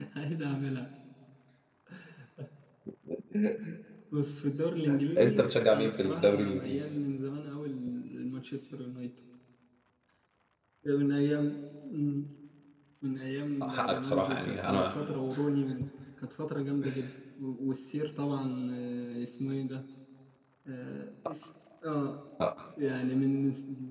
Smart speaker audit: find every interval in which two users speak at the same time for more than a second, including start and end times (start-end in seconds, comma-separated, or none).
5.2-6.9, 13.6-14.9